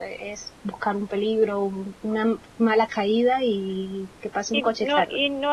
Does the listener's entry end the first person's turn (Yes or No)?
Yes